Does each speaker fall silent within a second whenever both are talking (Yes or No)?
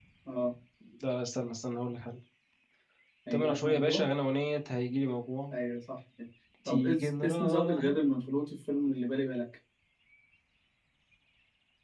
No